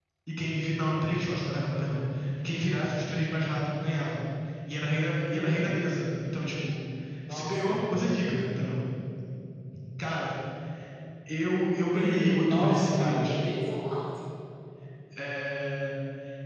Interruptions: present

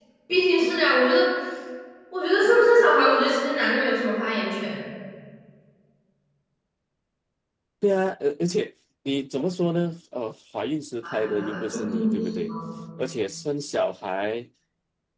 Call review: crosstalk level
present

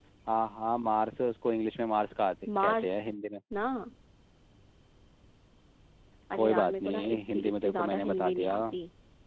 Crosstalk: present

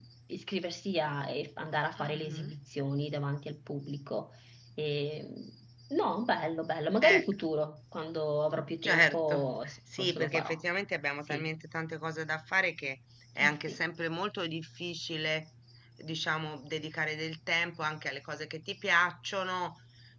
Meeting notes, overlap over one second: present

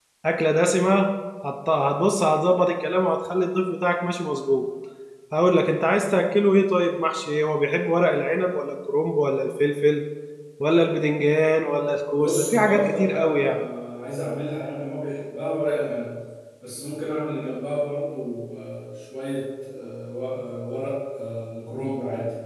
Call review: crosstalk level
present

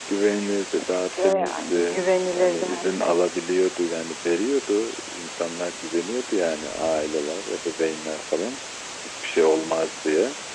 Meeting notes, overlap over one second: present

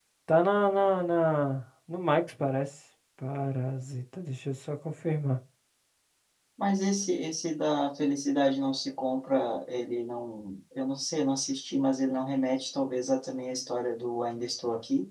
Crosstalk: none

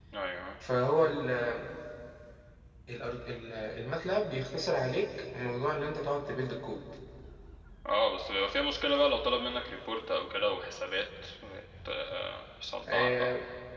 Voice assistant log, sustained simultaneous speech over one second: none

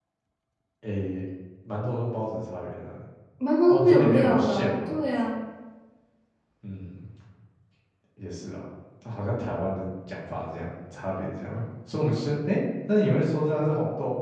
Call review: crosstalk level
present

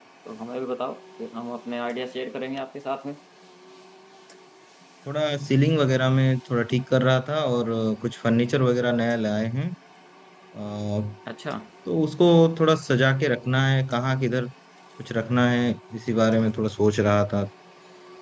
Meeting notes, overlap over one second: none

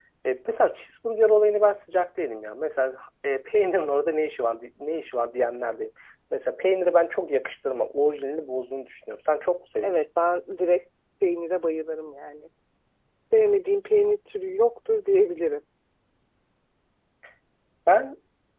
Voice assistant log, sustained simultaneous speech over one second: none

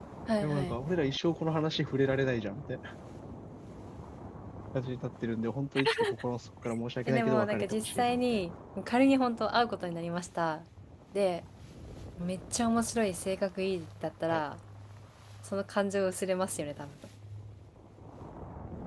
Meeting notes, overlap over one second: present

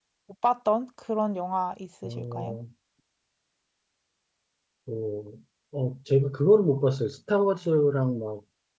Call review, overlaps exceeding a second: none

